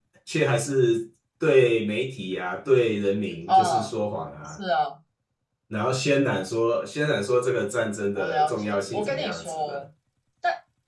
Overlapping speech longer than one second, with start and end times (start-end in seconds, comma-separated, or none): 8.2-9.8